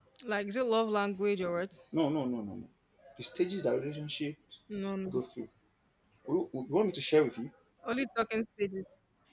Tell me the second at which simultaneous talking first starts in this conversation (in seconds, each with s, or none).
none